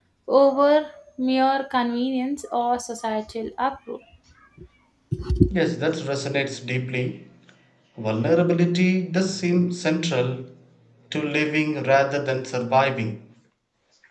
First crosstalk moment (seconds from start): none

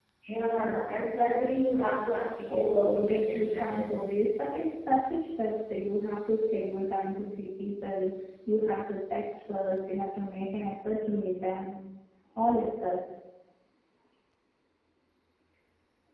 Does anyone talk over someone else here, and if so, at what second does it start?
2.5 s

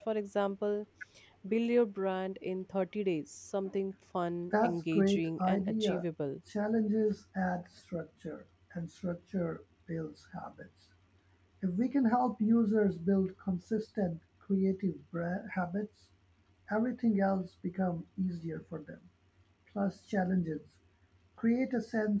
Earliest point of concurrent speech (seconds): 4.5 s

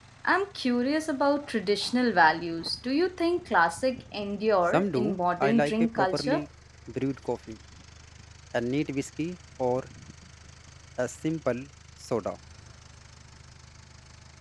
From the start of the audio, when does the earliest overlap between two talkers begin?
4.7 s

